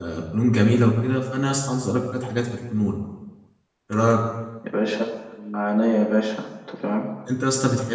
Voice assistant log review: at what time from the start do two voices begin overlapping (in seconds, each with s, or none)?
none